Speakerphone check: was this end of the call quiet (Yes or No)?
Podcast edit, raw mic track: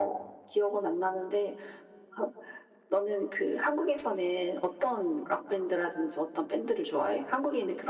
Yes